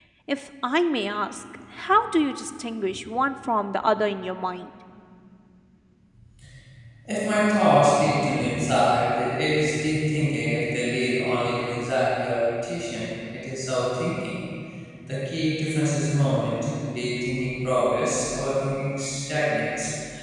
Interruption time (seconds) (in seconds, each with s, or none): none